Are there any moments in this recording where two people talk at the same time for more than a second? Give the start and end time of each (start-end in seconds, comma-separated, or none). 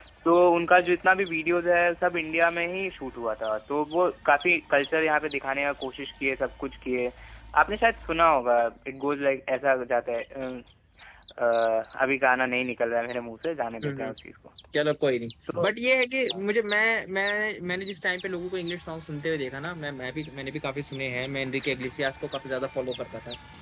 none